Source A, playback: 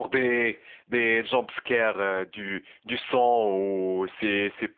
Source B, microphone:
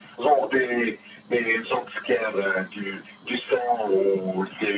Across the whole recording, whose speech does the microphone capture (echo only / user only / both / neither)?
echo only